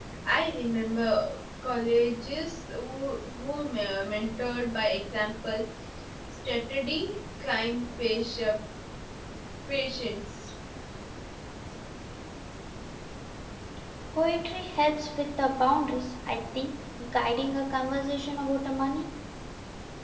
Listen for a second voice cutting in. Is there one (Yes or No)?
No